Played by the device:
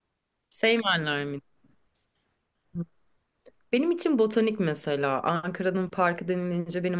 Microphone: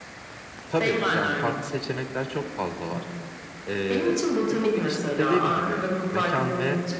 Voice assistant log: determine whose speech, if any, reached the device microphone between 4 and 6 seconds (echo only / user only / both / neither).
both